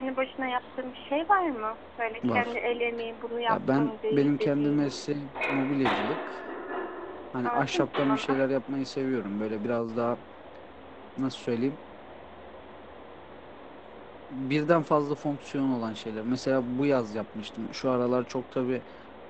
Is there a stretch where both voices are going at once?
Yes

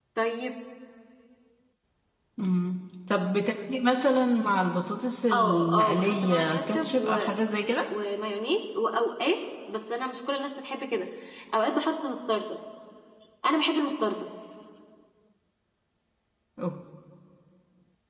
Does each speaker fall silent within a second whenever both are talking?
No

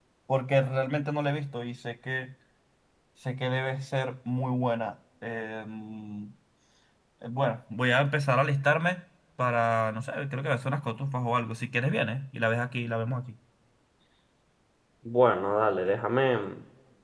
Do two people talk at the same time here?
No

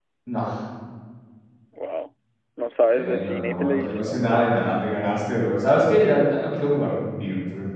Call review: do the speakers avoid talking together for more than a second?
No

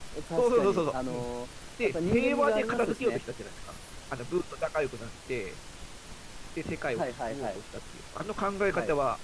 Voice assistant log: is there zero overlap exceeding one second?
No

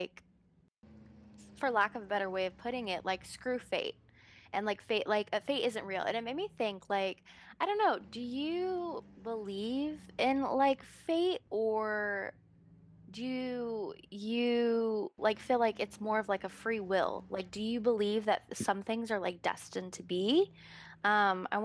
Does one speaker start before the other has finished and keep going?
No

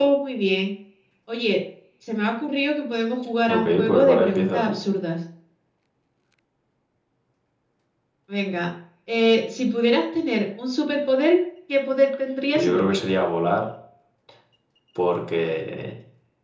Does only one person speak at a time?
No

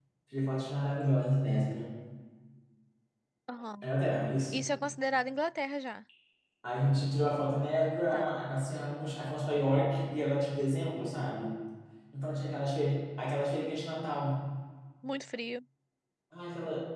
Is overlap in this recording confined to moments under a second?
Yes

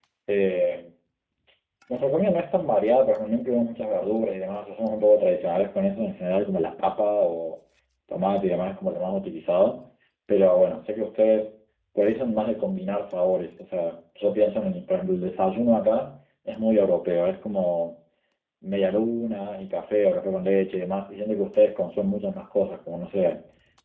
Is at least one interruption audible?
No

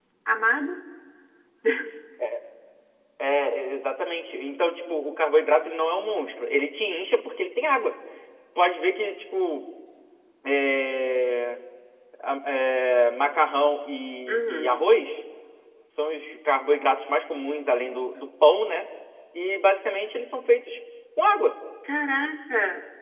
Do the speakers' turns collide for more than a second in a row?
No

